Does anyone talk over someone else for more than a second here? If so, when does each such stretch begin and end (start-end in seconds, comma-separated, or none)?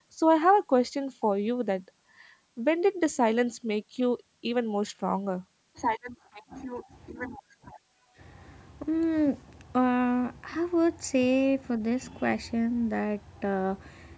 none